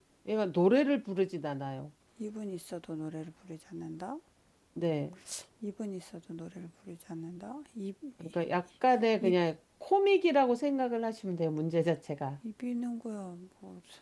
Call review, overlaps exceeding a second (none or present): none